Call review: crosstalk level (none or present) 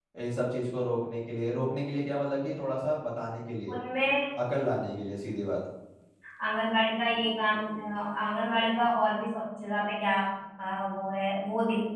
none